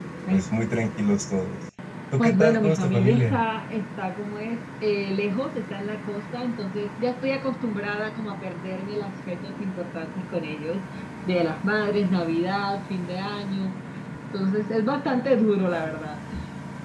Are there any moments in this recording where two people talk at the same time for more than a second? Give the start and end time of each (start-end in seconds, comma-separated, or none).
2.2-3.4